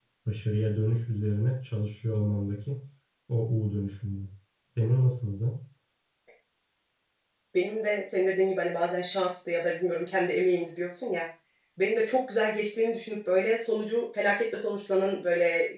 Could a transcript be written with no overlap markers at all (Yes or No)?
Yes